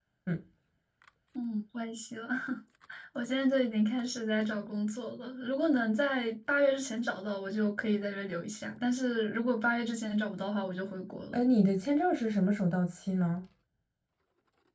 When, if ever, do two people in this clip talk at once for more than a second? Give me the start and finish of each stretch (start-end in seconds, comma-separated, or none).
none